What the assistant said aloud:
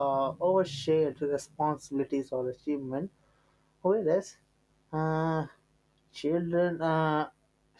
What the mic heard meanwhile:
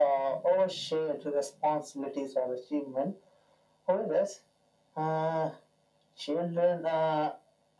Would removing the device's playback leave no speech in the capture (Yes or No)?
Yes